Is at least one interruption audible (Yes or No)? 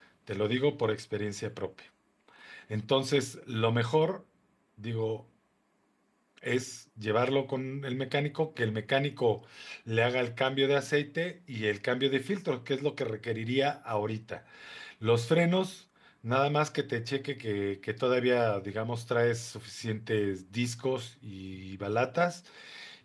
No